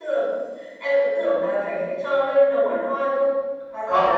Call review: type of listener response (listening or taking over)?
taking over